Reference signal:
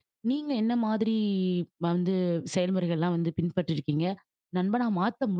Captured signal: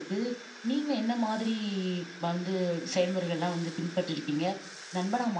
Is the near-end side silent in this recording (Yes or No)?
Yes